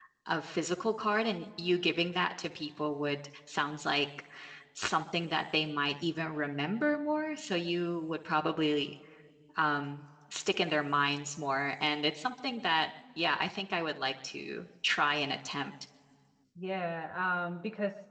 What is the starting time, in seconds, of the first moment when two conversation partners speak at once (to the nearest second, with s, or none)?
none